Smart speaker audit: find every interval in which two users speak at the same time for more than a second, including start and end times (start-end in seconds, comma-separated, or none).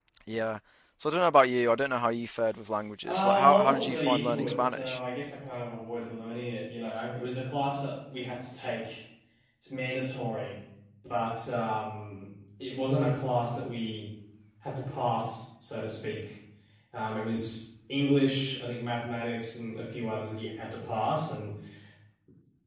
3.0-5.0